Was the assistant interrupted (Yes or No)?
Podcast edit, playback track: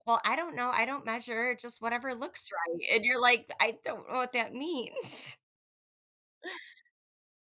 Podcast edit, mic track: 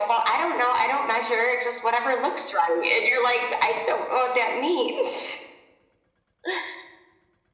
No